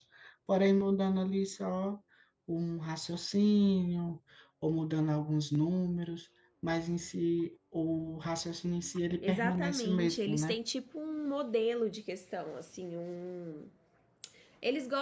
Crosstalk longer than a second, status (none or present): present